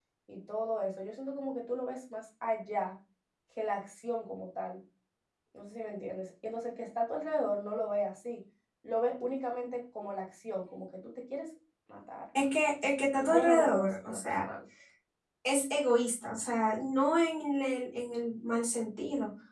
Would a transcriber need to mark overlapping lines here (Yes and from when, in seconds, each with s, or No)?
Yes, from 13.2 s